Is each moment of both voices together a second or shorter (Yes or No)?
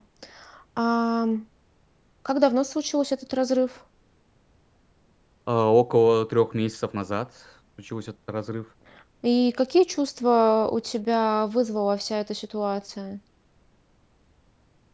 Yes